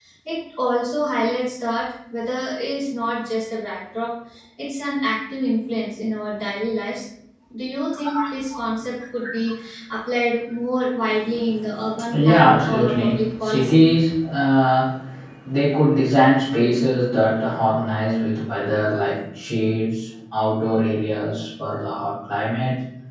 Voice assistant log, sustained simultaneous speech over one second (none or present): present